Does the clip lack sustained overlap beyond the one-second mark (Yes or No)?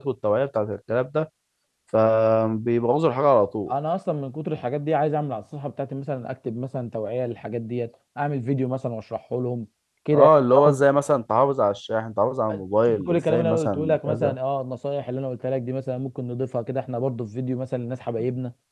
No